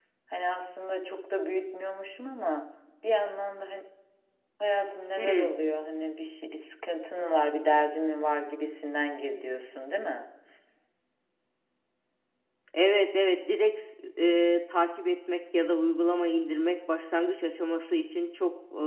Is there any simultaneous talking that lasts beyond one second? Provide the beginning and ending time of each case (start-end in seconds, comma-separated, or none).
none